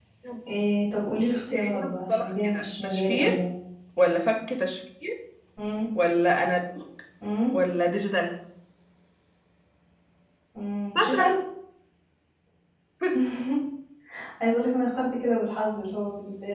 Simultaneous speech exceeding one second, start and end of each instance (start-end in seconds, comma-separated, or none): 1.4-3.4